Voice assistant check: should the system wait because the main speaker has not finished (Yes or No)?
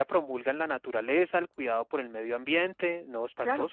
No